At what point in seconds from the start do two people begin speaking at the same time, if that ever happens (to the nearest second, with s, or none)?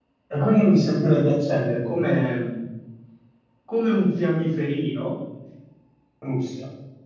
none